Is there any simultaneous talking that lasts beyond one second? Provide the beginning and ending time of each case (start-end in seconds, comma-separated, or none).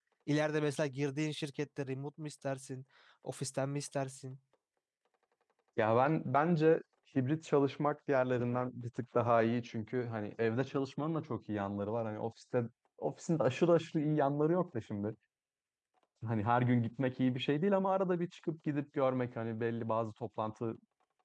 none